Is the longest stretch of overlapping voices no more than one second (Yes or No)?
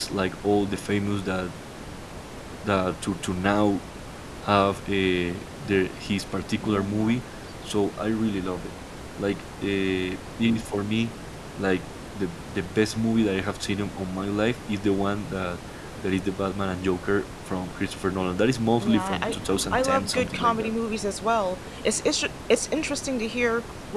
No